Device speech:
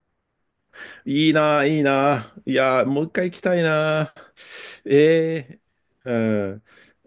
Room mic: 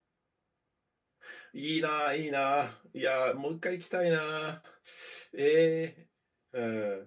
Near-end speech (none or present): none